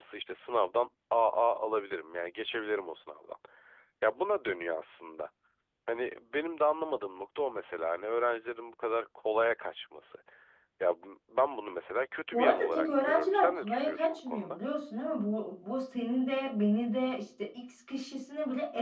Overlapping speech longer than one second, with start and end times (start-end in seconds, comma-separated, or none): 12.3-14.6